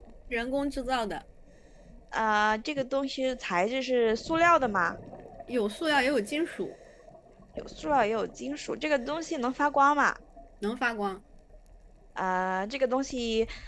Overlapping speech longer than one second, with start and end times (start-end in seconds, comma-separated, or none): none